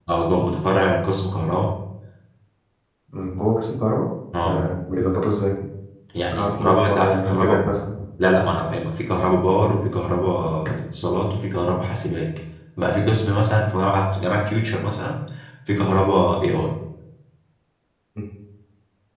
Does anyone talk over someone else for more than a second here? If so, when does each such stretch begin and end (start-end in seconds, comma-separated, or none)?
6.4-7.6